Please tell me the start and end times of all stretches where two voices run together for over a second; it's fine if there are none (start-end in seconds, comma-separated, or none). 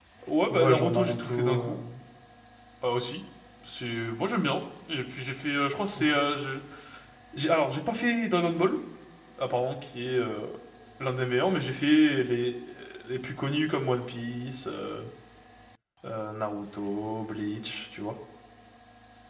0.5-1.8